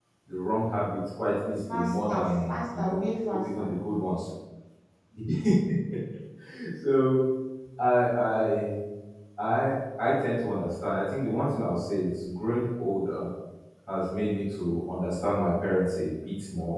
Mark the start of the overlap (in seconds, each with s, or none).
1.7 s